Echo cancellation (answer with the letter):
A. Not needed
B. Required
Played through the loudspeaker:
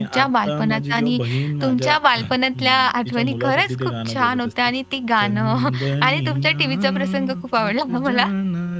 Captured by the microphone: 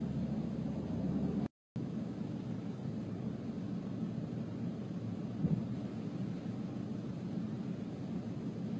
A